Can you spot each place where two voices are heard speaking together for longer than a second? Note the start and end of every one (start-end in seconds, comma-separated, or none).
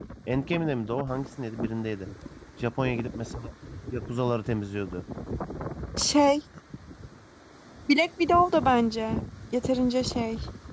none